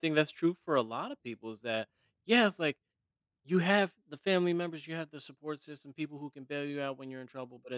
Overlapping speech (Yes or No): No